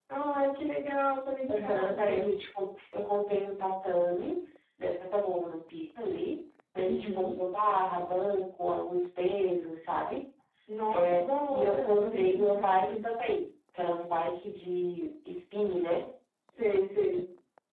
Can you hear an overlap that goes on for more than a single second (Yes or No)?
Yes